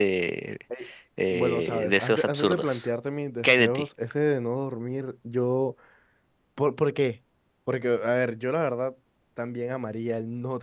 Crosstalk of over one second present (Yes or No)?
Yes